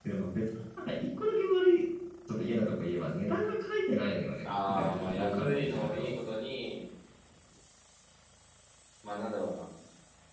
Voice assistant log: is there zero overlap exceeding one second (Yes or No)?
No